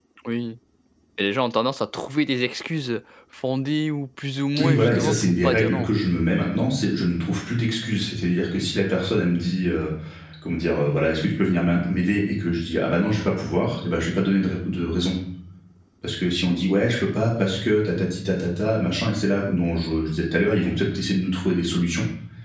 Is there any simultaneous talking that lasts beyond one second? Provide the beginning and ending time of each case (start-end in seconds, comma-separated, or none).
4.6-5.9